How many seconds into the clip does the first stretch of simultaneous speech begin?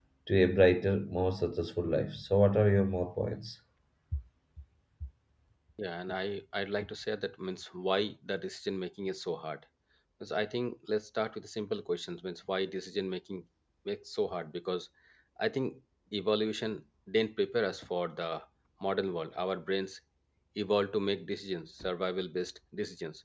none

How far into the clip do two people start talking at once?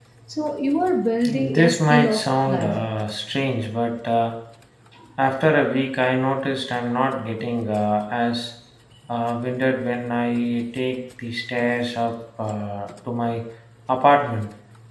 1.2 s

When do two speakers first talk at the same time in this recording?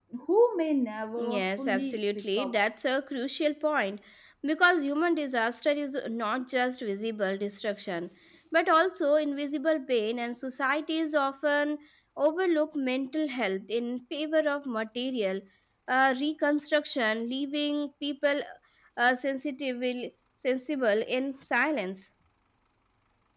1.2 s

